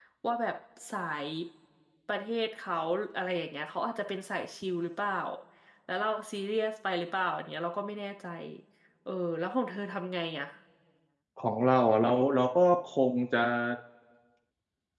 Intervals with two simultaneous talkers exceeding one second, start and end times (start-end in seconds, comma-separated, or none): none